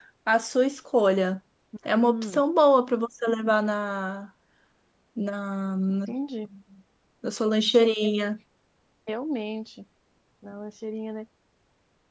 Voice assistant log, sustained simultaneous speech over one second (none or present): none